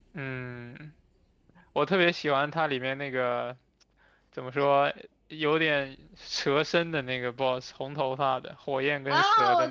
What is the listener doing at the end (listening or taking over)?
taking over